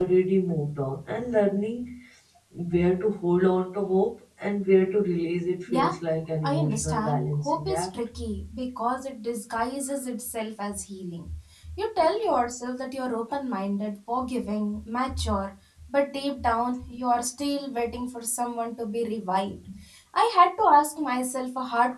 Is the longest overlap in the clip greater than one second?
Yes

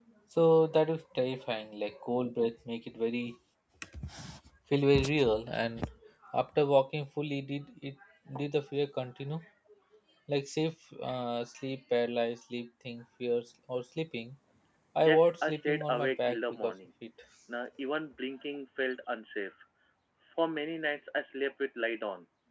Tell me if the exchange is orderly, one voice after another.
No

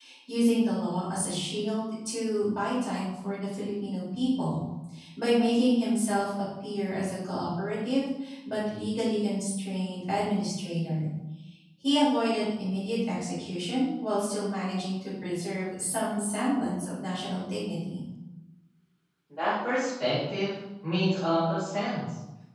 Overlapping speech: No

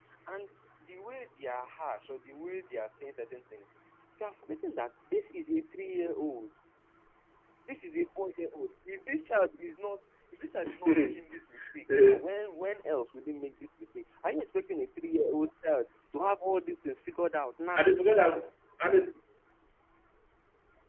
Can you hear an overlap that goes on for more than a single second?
No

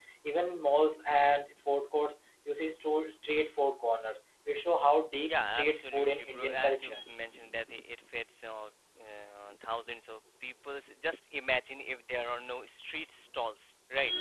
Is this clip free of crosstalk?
No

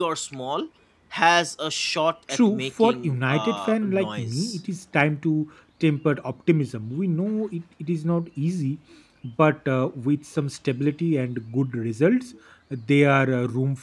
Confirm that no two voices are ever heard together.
No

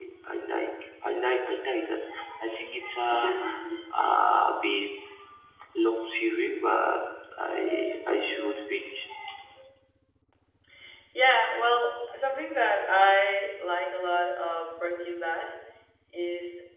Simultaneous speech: No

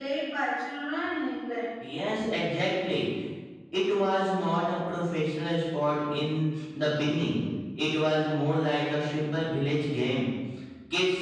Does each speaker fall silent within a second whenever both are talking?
Yes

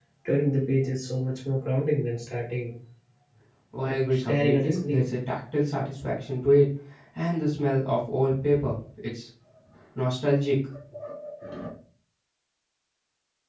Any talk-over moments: Yes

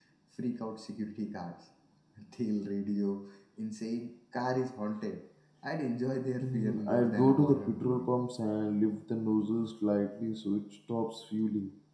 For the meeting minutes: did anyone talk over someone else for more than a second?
Yes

